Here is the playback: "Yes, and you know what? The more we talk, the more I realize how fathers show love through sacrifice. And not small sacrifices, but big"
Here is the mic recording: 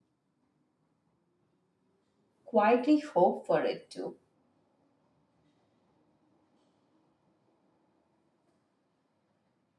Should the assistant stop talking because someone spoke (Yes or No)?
Yes